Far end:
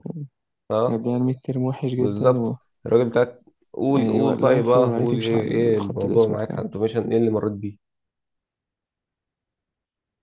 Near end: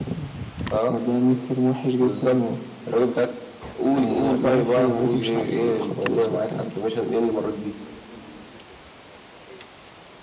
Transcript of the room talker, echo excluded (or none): none